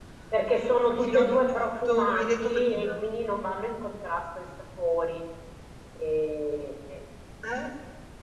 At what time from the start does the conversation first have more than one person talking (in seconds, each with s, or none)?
0.9 s